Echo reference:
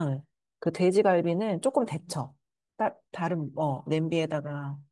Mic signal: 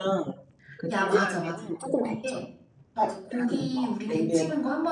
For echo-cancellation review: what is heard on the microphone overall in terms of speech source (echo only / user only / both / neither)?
both